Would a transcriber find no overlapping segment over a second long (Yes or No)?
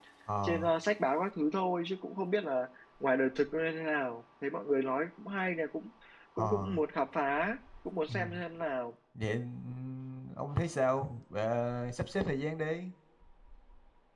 Yes